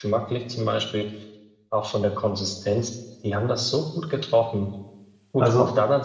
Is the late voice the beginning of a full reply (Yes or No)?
No